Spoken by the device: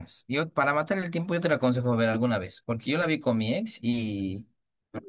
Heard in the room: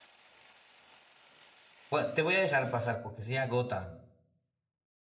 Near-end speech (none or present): present